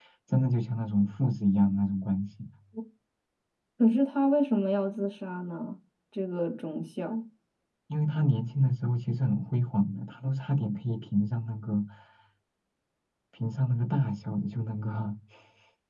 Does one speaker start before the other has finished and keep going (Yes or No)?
No